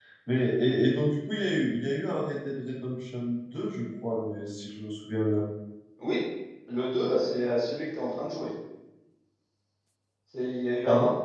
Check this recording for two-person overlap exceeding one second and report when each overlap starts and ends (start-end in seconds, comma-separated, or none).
none